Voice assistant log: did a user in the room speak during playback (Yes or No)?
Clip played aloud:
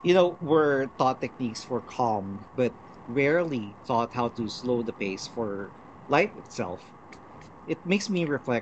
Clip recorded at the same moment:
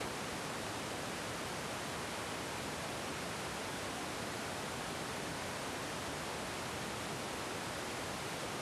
No